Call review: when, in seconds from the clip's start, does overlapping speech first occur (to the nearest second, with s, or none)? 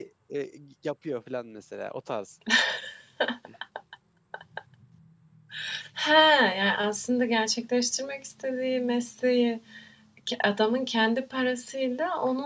none